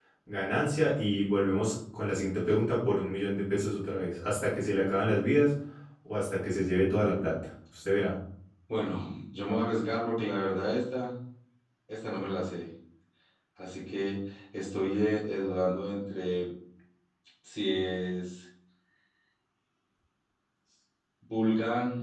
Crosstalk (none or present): none